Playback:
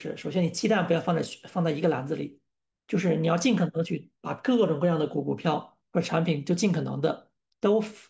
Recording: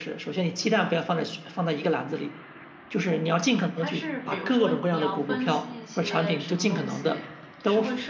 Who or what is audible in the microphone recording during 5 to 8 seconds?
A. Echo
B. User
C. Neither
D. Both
D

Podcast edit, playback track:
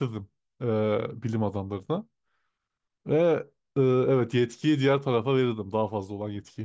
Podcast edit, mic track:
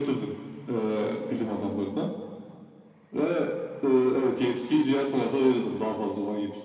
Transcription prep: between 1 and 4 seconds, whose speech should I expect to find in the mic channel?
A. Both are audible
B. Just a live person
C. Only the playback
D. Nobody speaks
C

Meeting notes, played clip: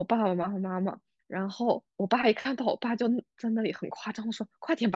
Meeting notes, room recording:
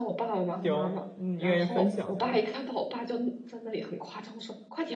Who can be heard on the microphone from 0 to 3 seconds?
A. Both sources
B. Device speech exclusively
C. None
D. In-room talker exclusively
A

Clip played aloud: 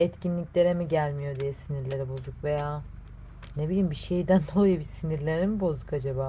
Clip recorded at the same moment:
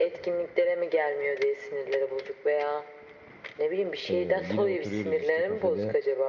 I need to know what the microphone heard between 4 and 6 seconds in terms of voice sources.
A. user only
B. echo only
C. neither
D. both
D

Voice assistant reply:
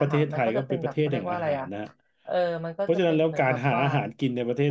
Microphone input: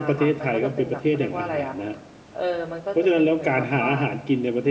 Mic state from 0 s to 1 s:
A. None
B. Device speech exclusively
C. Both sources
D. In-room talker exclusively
B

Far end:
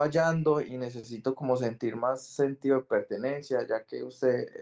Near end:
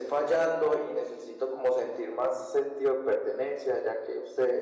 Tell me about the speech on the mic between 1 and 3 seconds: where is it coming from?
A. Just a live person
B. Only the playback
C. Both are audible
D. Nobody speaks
B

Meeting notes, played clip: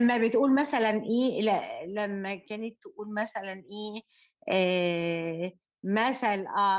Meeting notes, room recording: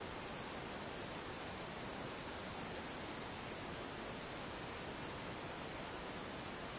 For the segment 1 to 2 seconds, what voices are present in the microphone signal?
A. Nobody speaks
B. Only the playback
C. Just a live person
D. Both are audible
A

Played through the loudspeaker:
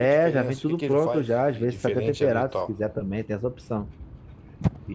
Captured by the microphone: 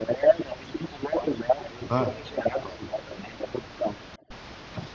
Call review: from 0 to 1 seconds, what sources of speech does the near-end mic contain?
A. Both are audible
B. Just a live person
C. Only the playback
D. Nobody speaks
C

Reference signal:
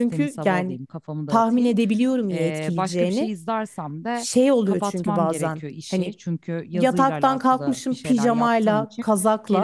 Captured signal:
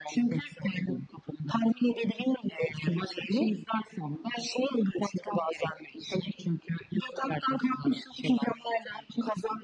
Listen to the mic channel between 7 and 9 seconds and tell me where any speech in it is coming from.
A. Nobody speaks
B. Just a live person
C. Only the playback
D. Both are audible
C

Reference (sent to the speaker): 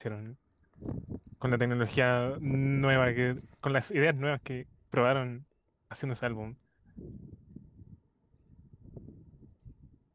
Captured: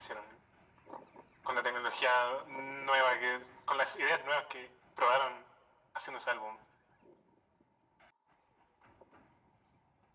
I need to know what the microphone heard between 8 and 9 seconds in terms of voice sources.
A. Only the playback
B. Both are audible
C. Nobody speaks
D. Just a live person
C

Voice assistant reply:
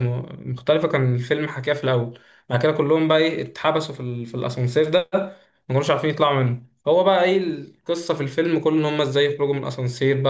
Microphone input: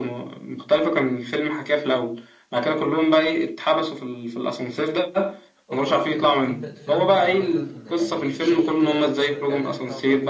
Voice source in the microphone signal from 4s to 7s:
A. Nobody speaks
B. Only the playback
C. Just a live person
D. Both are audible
D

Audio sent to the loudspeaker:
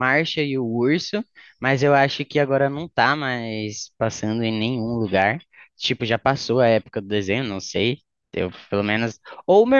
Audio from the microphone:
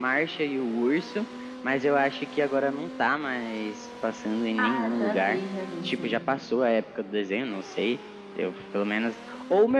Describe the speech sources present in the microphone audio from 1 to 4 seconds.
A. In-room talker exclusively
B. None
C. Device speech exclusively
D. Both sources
C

